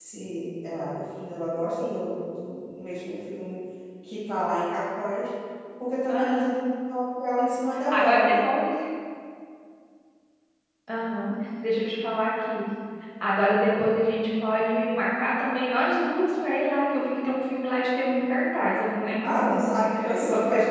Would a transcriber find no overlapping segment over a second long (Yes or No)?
No